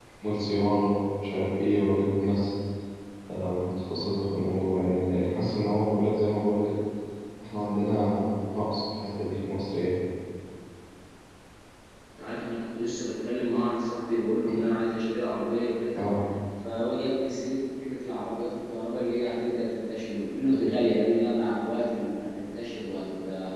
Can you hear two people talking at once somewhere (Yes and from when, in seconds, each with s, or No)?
No